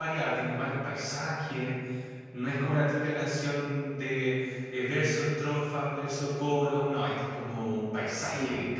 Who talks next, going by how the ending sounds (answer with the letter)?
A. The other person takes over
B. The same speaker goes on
A